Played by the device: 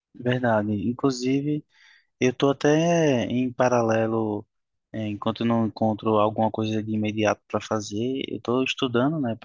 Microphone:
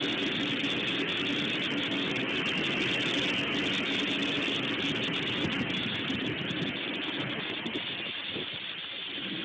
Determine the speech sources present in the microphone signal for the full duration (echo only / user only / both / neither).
neither